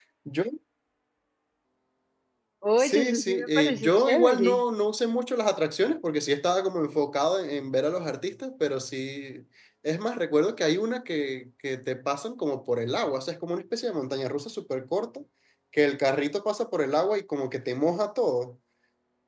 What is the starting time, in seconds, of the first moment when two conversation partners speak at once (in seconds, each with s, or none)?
2.8 s